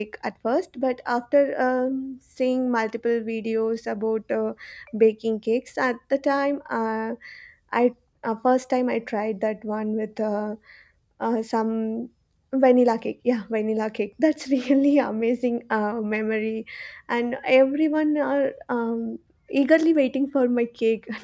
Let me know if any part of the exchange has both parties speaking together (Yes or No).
No